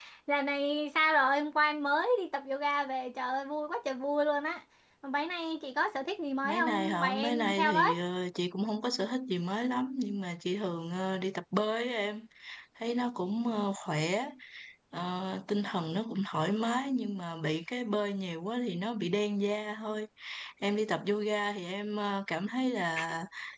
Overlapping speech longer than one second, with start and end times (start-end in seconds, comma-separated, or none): 6.4-7.9